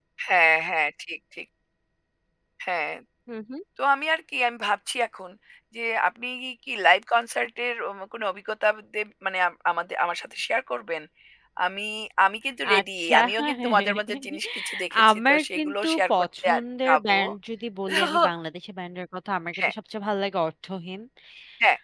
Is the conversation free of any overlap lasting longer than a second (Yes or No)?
No